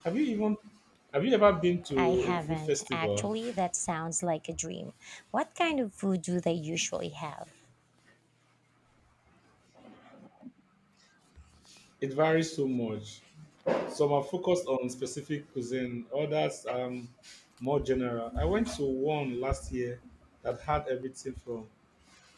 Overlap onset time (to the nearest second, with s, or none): 2 s